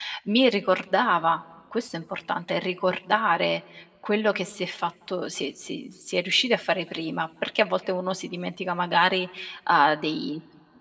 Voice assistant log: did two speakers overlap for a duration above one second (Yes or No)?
No